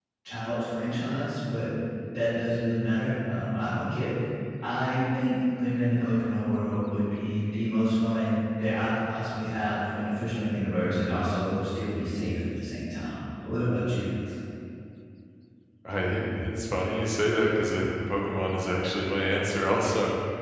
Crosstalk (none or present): none